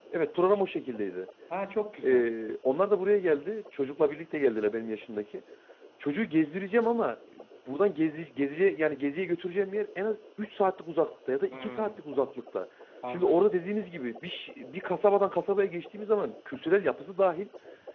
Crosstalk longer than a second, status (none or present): none